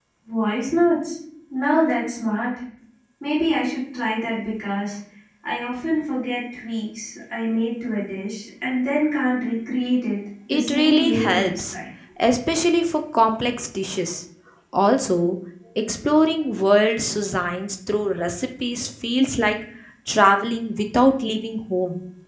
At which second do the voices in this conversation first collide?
10.5 s

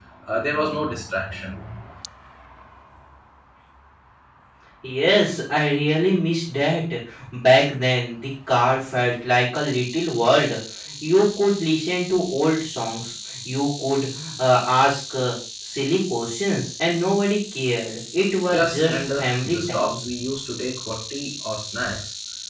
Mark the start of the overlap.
18.5 s

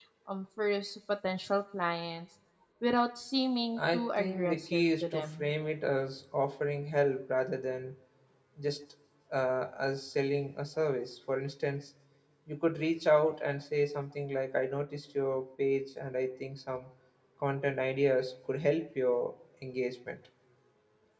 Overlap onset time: 3.8 s

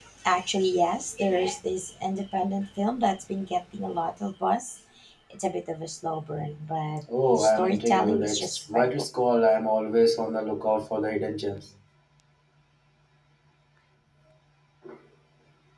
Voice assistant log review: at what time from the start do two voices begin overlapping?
7.1 s

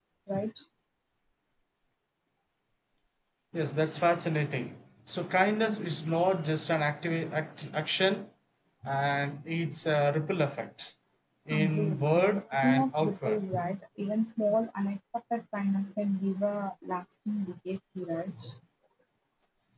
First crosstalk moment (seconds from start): 11.5 s

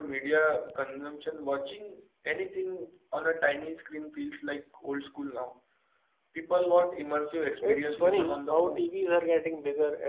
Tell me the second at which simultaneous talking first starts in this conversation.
7.6 s

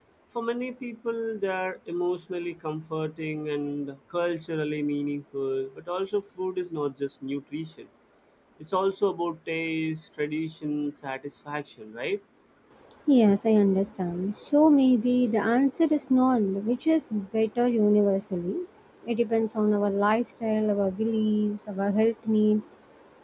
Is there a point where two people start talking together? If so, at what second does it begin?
none

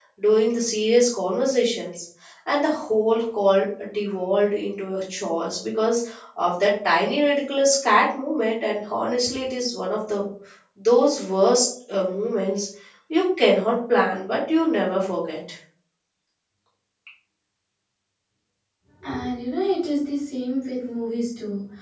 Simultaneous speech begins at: none

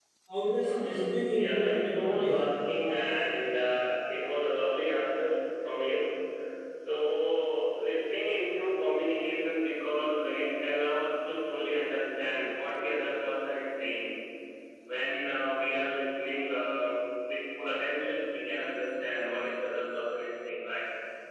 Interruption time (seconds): 0.6 s

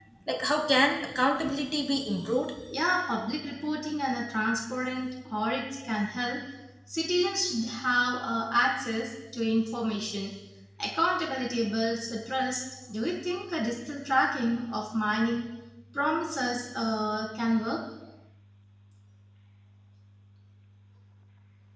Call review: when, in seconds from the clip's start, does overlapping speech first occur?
none

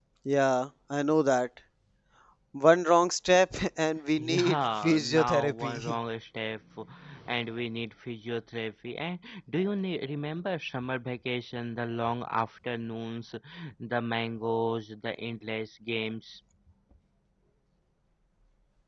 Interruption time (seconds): 4.2 s

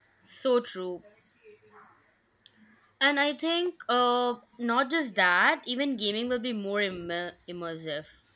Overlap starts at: none

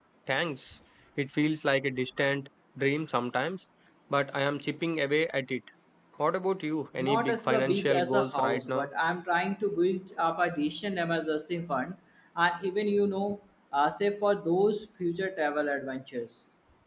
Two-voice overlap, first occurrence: 7.0 s

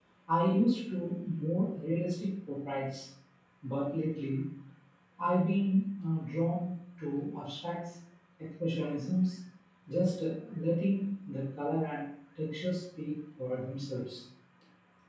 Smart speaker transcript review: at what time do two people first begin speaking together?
none

